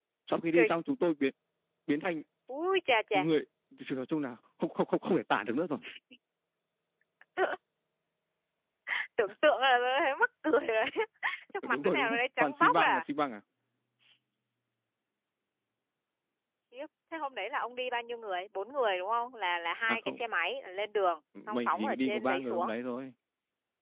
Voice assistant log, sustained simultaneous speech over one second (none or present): present